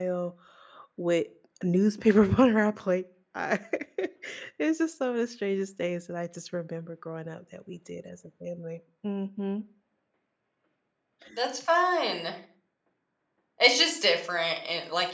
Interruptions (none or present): none